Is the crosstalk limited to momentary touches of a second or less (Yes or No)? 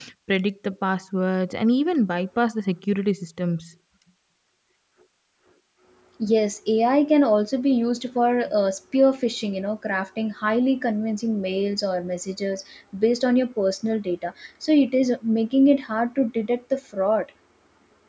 Yes